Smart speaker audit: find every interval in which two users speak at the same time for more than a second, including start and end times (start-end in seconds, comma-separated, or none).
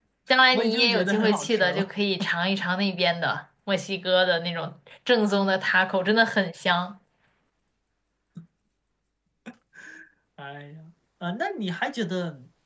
0.5-1.9